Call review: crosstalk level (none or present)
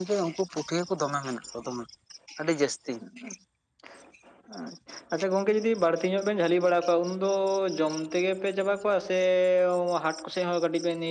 none